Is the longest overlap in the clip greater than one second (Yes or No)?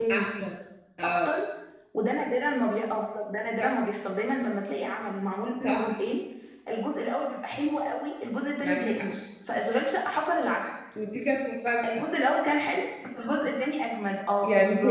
No